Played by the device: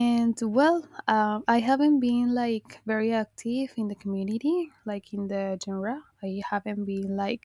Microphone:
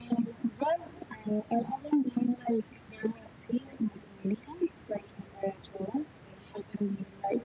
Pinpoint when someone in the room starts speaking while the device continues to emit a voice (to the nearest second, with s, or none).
none